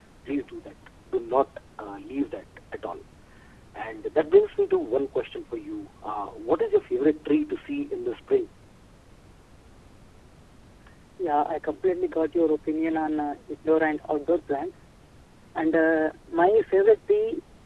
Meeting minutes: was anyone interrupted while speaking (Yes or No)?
No